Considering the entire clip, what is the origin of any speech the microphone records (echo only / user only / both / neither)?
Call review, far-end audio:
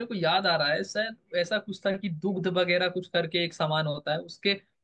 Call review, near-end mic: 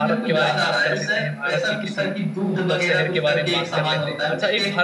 both